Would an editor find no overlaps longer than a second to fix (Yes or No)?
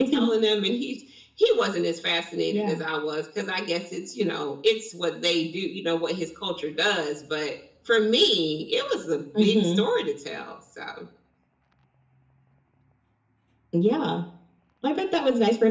Yes